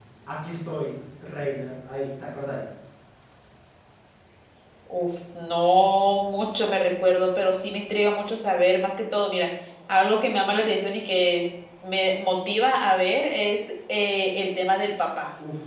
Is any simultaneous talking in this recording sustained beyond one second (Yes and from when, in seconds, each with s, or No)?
No